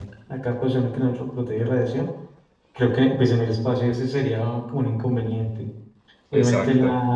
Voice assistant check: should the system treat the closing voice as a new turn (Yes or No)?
No